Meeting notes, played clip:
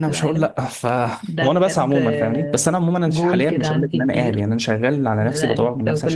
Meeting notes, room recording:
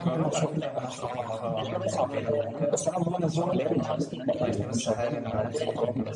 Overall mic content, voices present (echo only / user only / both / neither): both